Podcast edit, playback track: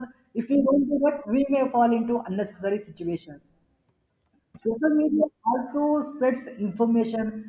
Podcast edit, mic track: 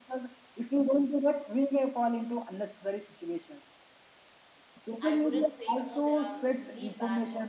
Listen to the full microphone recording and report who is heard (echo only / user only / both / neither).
both